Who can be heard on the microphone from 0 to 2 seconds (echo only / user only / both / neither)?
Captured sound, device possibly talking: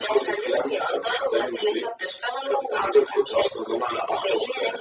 echo only